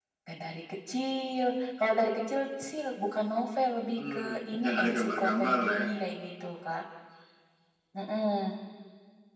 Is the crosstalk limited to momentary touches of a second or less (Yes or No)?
No